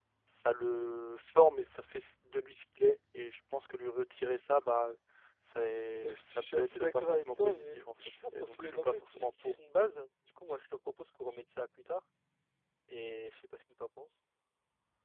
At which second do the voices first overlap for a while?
6.0 s

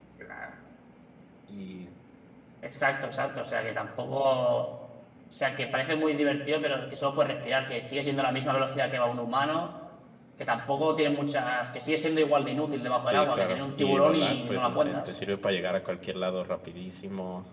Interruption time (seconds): 13.0 s

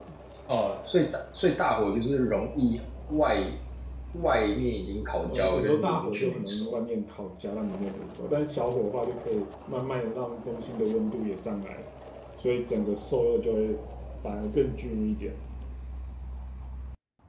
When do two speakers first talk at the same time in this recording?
5.2 s

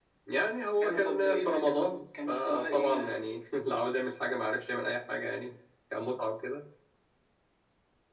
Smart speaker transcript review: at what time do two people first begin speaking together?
0.8 s

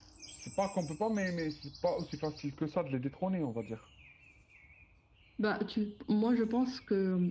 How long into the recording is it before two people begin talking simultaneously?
none

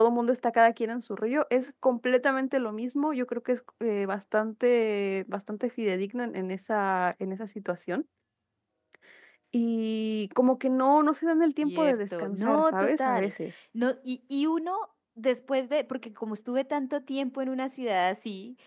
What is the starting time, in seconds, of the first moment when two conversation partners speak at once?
11.6 s

